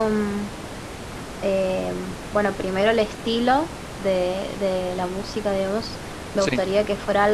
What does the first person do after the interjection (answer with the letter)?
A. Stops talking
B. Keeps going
B